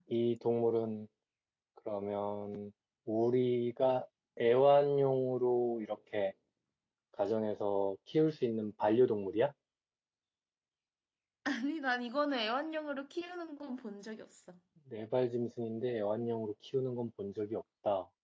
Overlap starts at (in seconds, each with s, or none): none